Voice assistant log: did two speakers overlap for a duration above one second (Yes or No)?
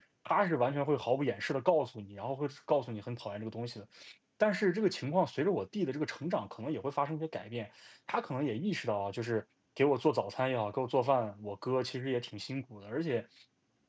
No